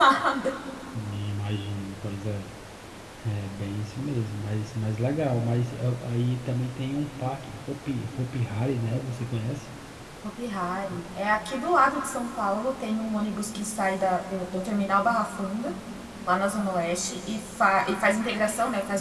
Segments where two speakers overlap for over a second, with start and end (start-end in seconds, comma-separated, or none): none